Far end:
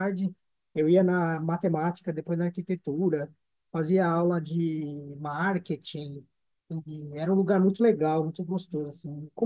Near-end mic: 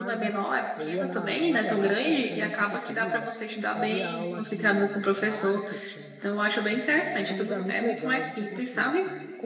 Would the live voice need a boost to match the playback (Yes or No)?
No